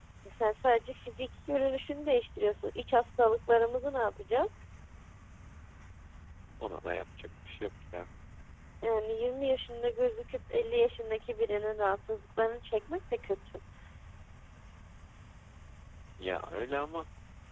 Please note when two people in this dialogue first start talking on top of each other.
none

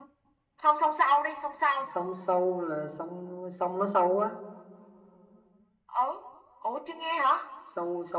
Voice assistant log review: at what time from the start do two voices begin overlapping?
none

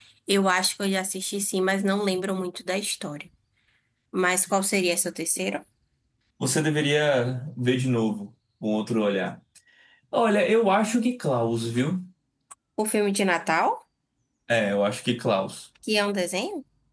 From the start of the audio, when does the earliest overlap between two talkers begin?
none

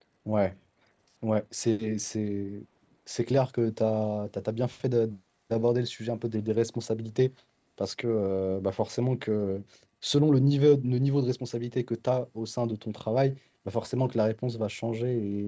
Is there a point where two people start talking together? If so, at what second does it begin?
none

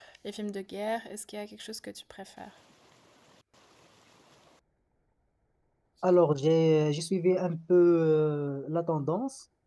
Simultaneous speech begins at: none

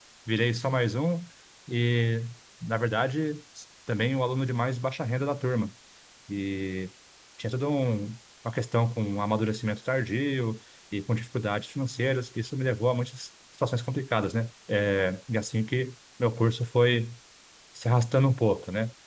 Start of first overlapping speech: none

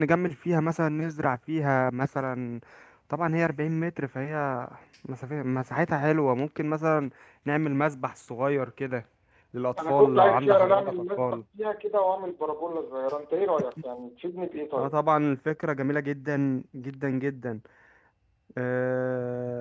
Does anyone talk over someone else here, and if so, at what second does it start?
9.9 s

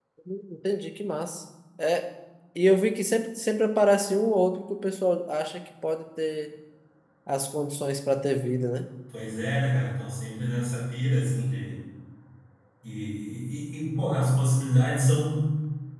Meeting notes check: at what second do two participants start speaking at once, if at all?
none

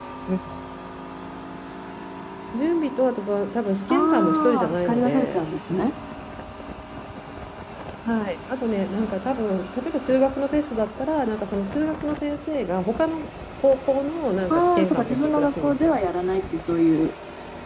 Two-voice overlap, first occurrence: 3.9 s

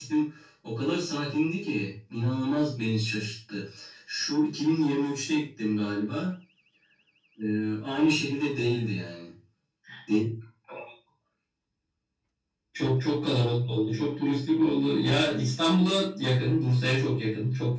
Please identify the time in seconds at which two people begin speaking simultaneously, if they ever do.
none

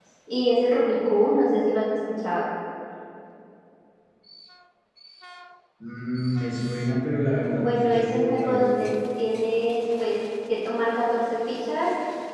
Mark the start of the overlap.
7.4 s

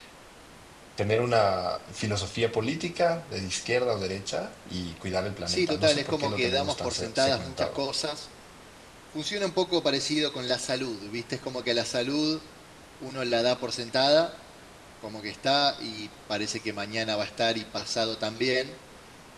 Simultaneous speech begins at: 5.5 s

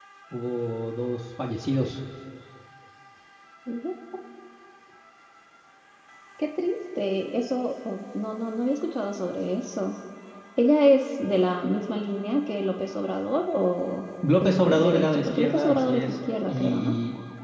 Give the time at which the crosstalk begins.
14.2 s

